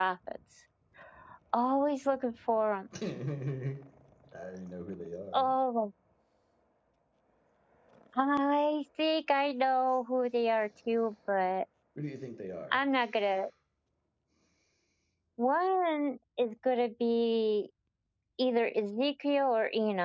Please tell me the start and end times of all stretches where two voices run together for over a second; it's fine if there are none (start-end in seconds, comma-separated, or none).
none